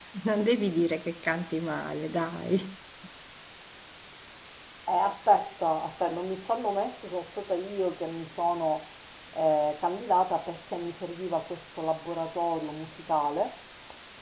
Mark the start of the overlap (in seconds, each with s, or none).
none